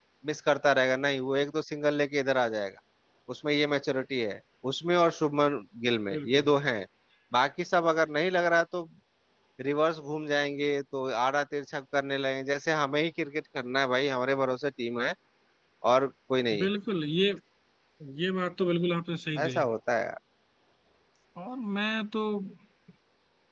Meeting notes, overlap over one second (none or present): none